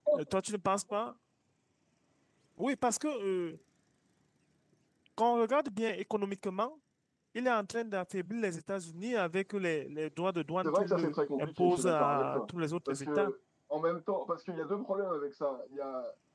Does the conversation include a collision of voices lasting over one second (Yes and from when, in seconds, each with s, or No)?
Yes, from 10.6 s